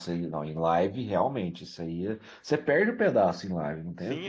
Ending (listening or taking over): taking over